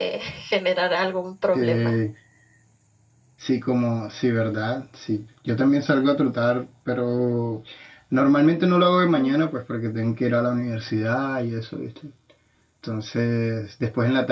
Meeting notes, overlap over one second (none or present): none